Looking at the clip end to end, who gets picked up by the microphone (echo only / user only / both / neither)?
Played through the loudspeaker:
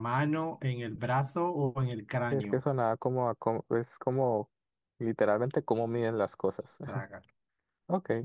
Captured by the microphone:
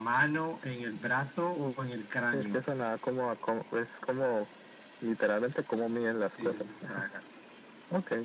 both